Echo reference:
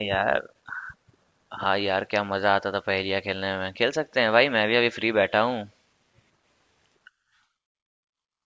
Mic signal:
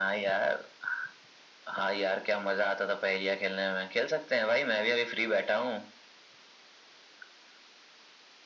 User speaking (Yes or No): No